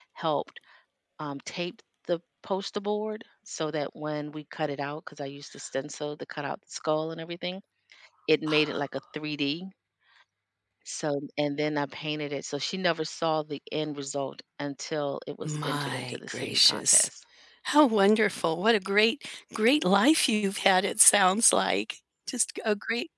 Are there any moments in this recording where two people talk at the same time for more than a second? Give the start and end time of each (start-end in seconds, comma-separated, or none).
15.4-17.1